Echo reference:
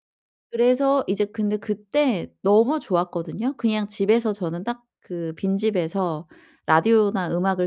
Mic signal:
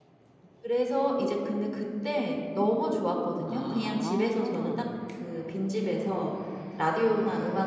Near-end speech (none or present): present